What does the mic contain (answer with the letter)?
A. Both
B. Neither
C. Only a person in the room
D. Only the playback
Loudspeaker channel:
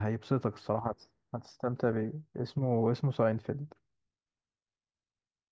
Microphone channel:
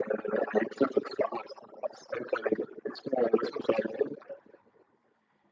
D